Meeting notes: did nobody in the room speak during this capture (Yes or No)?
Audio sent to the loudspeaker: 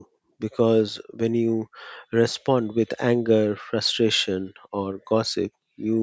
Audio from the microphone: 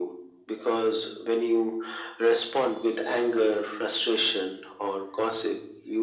Yes